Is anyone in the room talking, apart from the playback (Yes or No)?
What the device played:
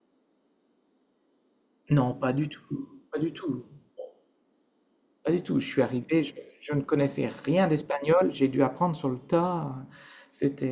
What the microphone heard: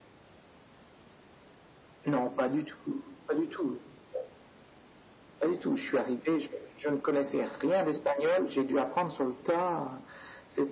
No